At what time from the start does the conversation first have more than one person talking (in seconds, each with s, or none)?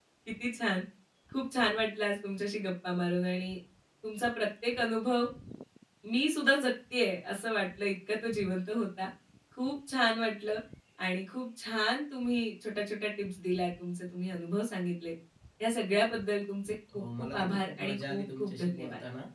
16.9 s